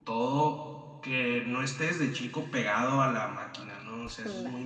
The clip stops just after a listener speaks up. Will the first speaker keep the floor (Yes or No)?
Yes